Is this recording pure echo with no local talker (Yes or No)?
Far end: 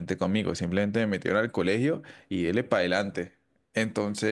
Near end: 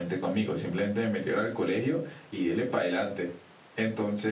Yes